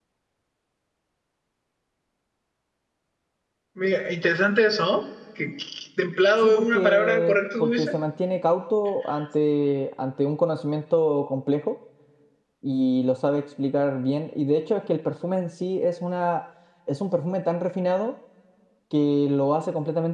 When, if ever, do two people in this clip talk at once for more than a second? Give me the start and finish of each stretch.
6.4-7.9

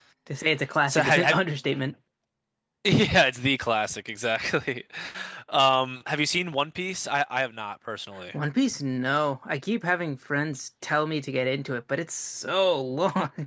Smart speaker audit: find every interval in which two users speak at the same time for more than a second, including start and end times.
none

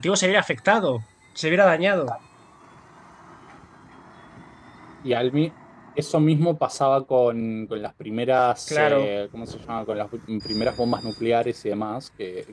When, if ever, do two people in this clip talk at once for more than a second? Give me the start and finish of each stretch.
none

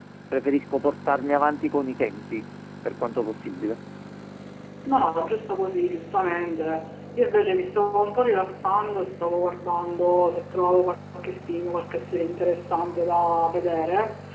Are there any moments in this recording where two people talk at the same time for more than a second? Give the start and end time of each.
none

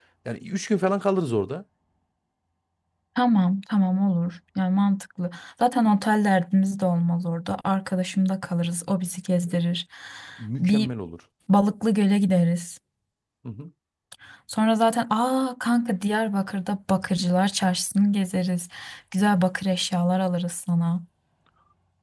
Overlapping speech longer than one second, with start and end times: none

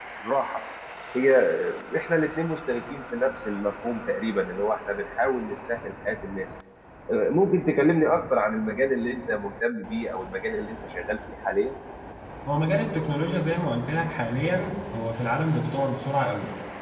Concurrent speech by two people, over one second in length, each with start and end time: none

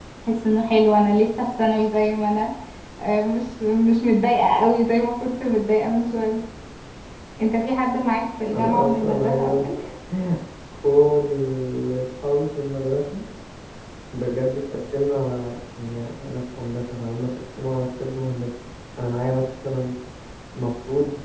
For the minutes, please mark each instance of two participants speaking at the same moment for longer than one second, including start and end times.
8.5-9.8

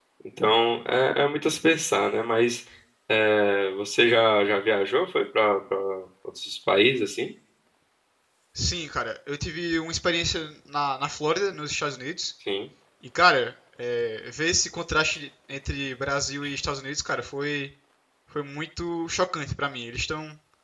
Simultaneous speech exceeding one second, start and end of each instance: none

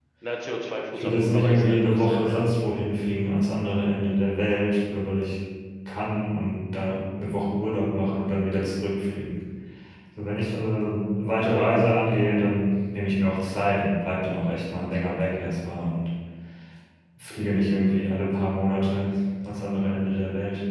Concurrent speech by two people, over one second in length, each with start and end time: 1.0-2.5

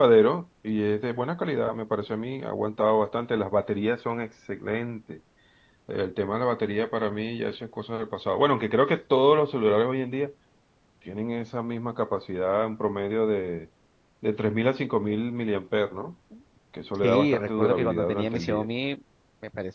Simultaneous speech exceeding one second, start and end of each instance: 17.0-18.7

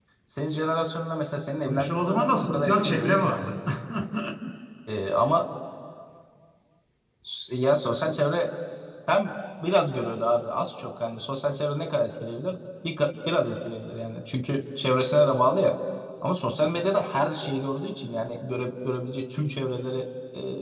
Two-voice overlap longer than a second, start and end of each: 1.6-3.4

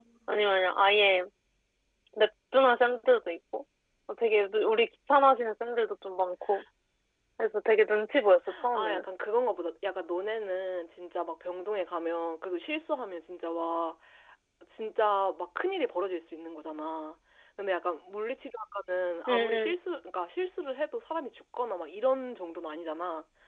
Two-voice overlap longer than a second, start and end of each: none

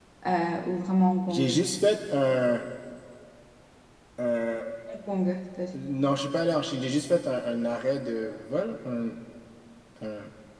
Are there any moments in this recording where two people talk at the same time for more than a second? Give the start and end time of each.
none

